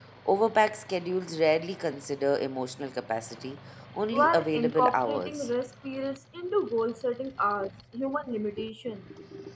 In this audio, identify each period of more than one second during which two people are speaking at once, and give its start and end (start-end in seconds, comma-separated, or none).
4.1-5.5